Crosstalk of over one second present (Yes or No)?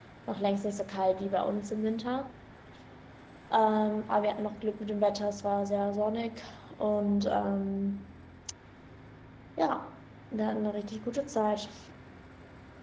No